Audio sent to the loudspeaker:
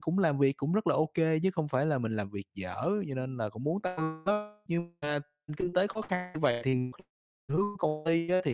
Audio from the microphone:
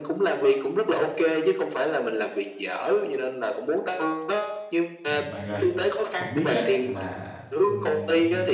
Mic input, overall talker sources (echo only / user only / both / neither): both